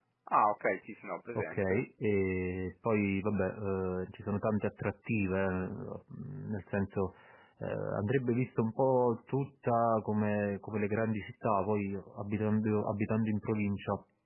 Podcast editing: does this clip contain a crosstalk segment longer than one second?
No

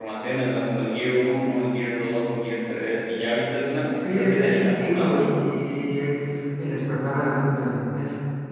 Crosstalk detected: Yes, from 4.0 s

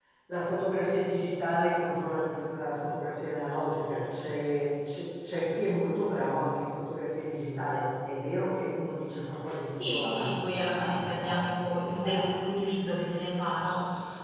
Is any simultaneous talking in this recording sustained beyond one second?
Yes, from 9.7 s

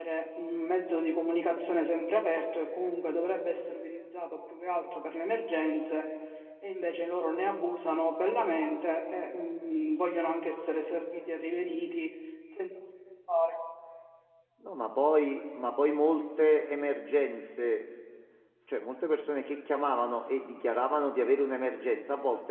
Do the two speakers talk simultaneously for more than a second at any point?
No

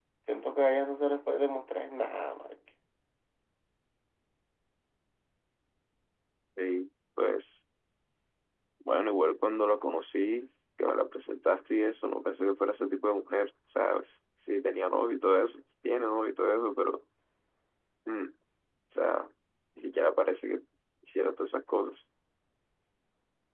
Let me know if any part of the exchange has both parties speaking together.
No

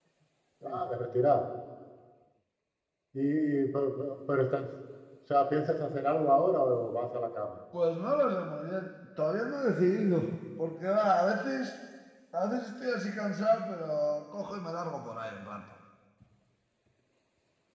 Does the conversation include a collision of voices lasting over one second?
No

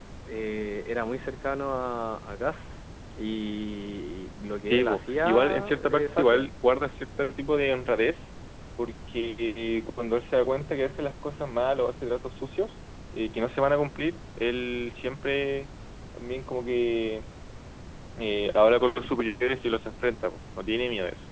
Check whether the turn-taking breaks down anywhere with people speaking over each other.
Yes, from 4.6 s

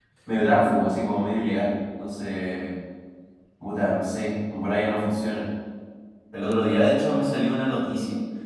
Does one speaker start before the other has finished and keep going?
No

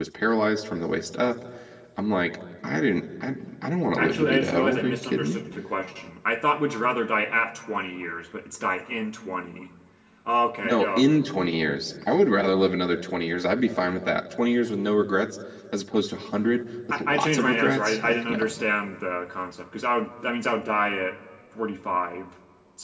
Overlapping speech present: Yes, from 4.0 s

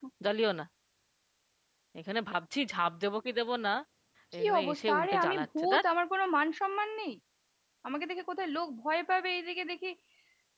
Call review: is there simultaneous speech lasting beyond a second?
Yes, from 4.4 s

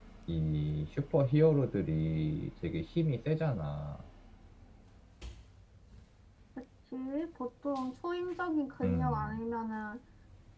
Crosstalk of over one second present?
No

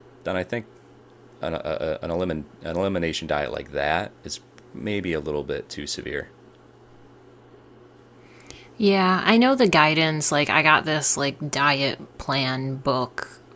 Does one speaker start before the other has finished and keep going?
No

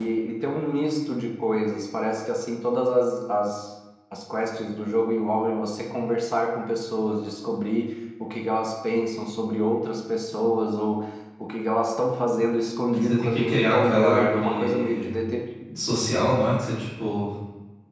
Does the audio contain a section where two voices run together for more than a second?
Yes, from 12.9 s

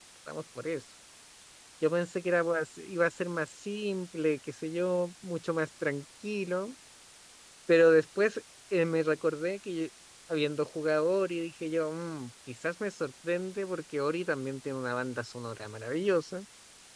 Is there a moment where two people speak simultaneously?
No

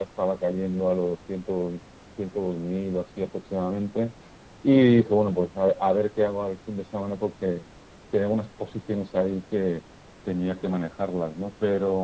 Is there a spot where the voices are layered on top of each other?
No

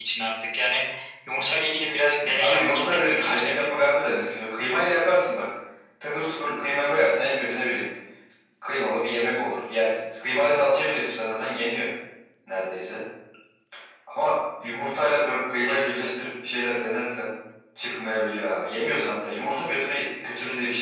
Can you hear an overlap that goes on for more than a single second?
Yes, from 2.4 s

